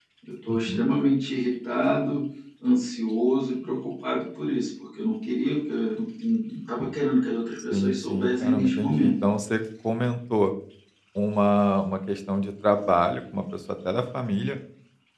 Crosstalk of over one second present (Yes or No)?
Yes